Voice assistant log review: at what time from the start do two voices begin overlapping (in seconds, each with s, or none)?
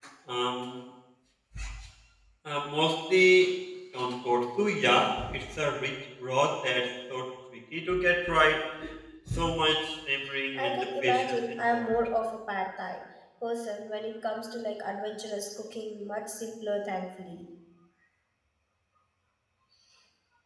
10.6 s